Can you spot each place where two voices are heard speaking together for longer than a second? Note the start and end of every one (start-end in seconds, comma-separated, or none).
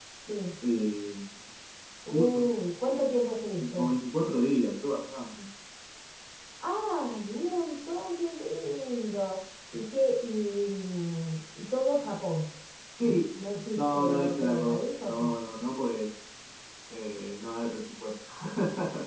13.8-15.3